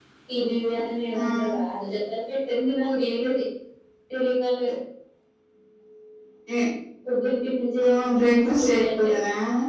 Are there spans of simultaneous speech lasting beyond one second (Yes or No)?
Yes